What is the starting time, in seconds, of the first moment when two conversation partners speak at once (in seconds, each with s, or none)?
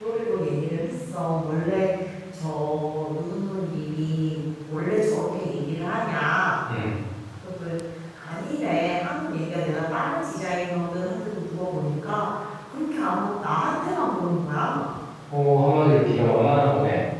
none